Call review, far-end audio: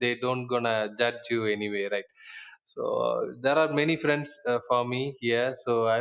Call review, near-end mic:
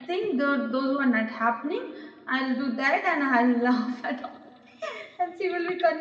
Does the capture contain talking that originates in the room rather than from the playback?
Yes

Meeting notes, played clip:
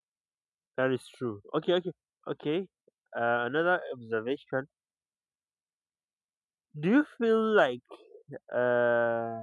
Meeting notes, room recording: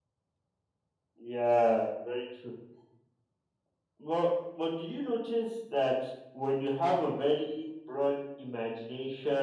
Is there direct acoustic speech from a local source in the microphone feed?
Yes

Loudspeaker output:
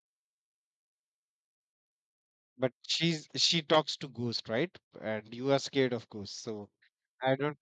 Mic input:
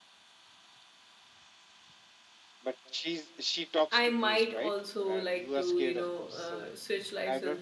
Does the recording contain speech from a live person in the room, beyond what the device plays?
Yes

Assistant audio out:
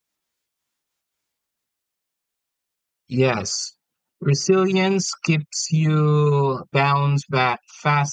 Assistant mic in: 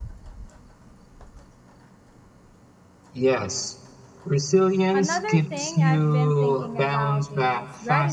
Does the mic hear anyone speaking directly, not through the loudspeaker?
Yes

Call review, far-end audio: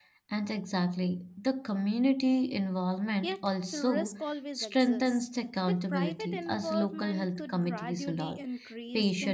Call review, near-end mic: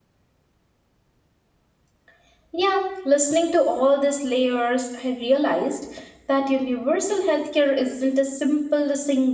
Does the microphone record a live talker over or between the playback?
Yes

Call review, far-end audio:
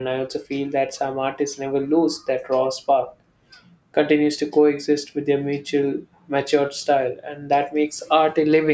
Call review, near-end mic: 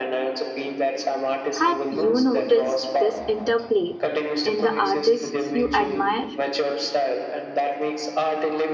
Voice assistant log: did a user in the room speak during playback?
Yes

